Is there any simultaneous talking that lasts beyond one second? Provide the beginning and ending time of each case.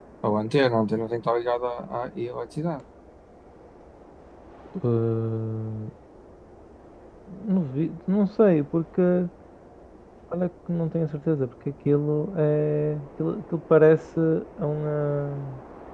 none

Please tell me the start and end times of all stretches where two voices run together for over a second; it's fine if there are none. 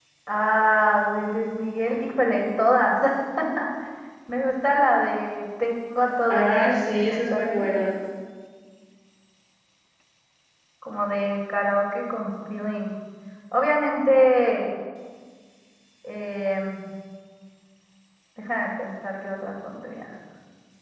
6.3-7.6

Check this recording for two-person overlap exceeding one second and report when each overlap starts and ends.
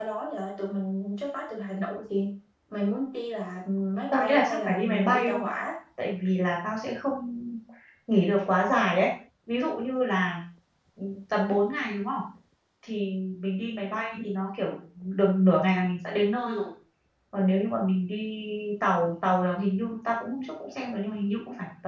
4.1-5.5

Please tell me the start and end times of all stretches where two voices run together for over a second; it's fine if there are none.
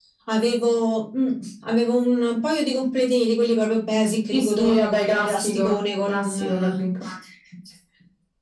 4.3-6.8

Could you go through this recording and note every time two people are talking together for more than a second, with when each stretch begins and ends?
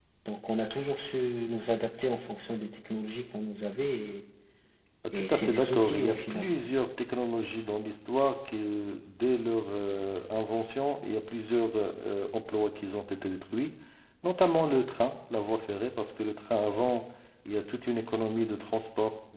5.1-6.4

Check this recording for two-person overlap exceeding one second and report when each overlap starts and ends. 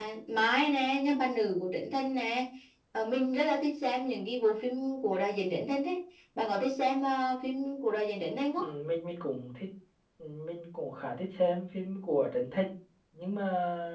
none

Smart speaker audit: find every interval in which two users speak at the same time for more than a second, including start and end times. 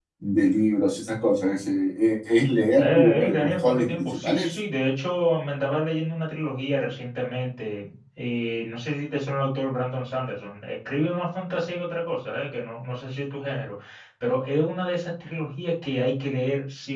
2.8-4.6

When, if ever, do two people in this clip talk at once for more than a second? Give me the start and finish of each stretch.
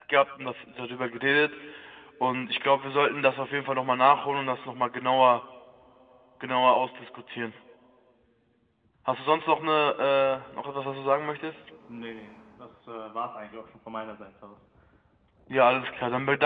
none

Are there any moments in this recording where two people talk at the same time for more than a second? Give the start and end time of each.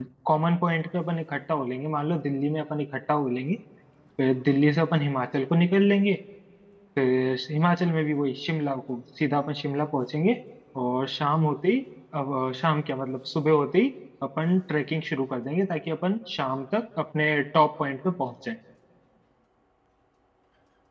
none

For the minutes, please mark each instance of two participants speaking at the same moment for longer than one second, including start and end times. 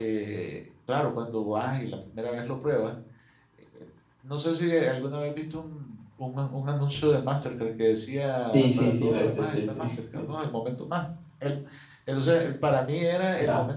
8.5-10.3

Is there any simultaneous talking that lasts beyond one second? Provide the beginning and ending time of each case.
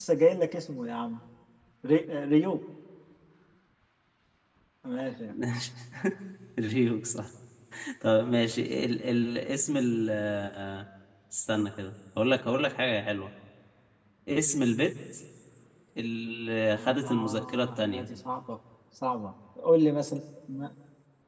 16.8-18.1

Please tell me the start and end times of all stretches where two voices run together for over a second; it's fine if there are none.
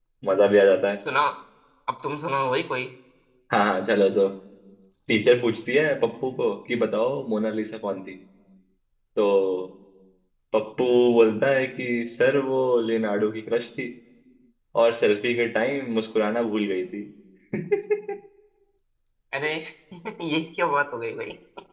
none

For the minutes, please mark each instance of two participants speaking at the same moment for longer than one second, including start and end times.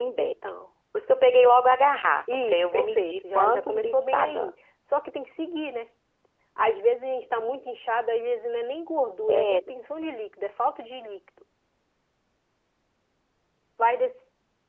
2.4-4.5

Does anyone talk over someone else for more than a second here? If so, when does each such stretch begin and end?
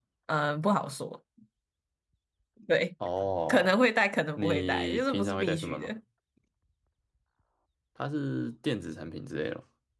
4.4-5.9

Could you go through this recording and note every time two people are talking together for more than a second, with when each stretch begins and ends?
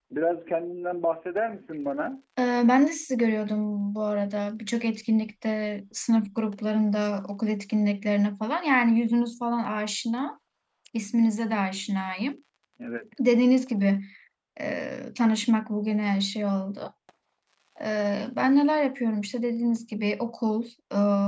none

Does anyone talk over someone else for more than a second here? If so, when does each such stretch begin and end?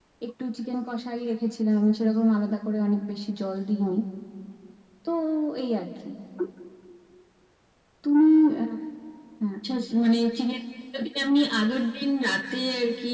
none

